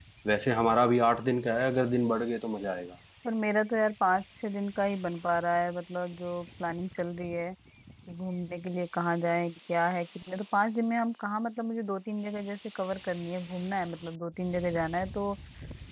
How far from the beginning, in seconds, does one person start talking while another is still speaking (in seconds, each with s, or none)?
none